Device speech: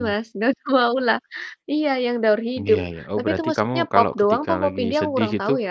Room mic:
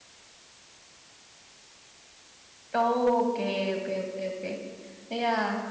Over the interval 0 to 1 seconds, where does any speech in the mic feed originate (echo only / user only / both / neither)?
neither